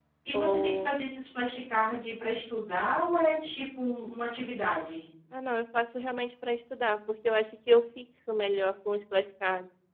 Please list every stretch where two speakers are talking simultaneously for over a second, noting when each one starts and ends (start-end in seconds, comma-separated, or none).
none